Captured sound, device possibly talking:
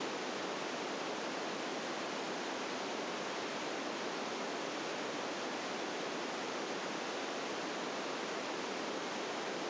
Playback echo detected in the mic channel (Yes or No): No